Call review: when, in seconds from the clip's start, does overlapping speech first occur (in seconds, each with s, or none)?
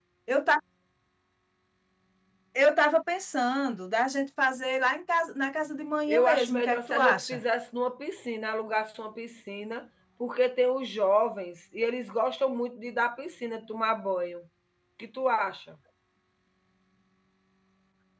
6.1 s